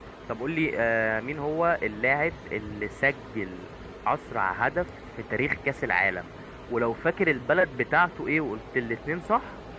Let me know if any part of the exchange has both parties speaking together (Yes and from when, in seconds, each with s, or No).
No